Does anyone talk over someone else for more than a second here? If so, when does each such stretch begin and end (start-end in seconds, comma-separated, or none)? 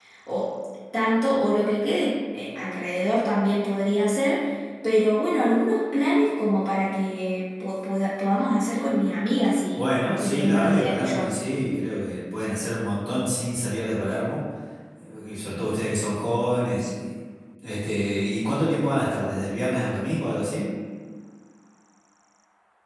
9.8-11.3